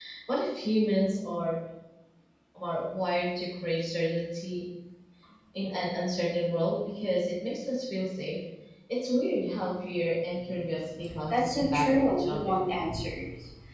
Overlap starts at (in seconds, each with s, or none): 11.3 s